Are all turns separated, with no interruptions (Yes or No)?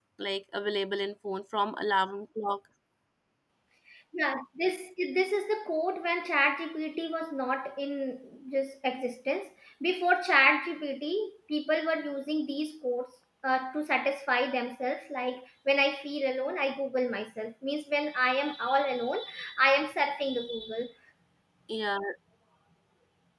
Yes